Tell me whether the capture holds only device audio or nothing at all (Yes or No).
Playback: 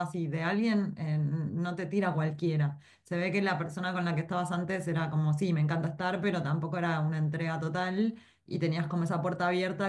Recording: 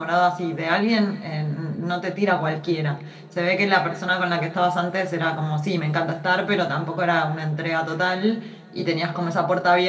Yes